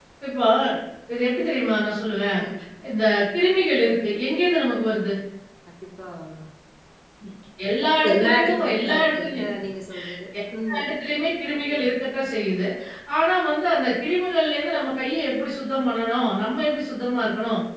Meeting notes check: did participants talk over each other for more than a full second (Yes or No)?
Yes